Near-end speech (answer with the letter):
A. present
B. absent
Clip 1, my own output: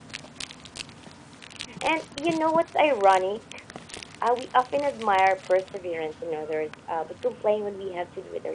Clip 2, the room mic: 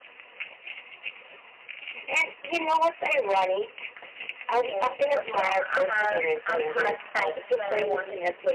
A